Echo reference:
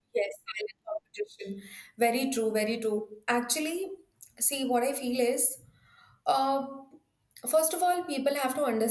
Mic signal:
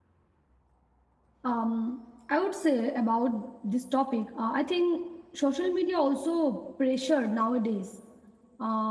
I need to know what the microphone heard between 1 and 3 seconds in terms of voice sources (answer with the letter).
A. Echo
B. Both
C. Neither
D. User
D